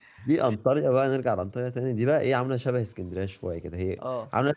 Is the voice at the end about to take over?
No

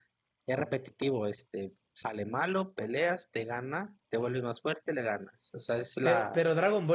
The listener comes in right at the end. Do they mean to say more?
Yes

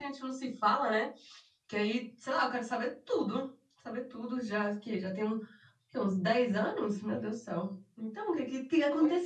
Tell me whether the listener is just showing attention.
No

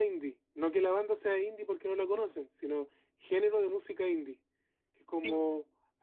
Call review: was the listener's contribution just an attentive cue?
Yes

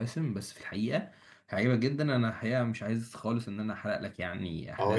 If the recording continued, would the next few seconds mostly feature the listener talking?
Yes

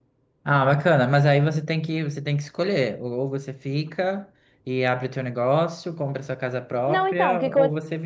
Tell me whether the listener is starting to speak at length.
Yes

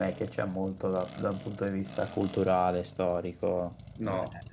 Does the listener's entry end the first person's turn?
Yes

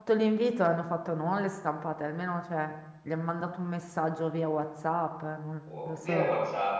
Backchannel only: No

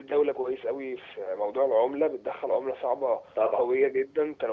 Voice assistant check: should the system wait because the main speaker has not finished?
Yes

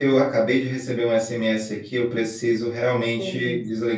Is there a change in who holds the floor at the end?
No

